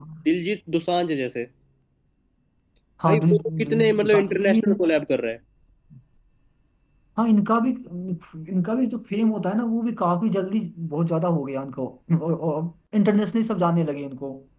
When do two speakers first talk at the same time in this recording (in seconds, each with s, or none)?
3.0 s